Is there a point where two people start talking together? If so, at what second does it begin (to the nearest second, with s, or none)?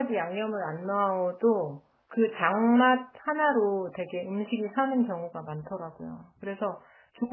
none